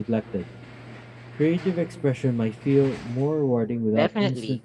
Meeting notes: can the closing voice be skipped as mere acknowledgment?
No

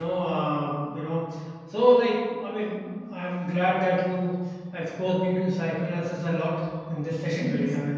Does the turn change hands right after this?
No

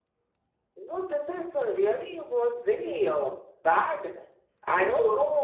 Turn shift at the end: No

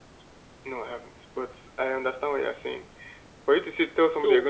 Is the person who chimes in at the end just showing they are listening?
Yes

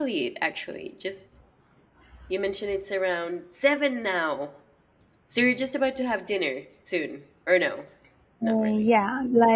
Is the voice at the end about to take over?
Yes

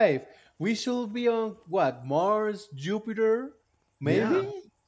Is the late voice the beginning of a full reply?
Yes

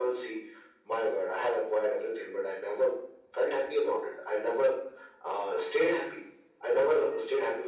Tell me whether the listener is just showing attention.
Yes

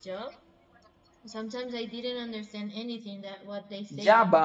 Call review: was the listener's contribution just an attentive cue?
No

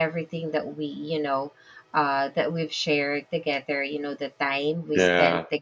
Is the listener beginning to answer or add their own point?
No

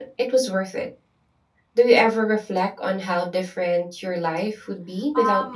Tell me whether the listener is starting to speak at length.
Yes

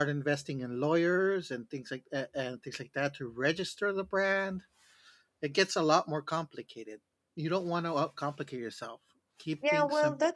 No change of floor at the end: No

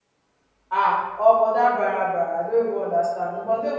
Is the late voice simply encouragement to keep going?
Yes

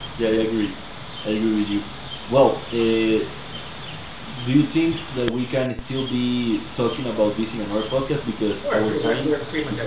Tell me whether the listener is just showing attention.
No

